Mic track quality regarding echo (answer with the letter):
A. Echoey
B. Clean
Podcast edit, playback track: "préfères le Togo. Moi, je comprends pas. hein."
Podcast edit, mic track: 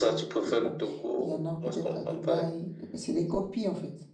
A